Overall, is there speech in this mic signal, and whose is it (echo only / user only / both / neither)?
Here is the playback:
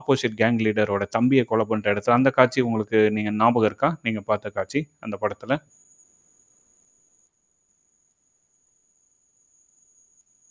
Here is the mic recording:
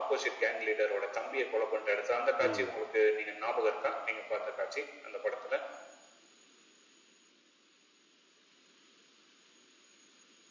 both